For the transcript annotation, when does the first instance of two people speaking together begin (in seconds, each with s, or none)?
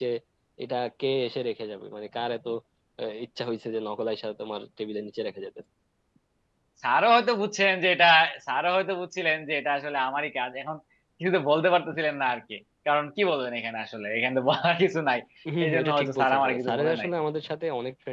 15.6 s